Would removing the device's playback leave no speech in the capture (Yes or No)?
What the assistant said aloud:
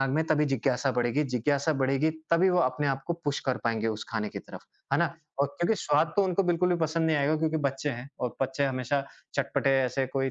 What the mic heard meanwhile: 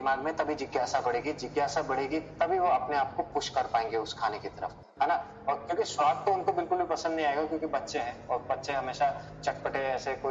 Yes